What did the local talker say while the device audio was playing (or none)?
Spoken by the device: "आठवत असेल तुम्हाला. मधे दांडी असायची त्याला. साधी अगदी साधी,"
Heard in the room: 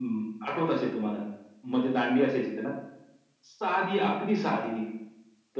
none